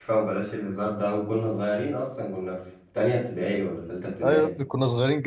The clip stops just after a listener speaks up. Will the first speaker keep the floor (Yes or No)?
No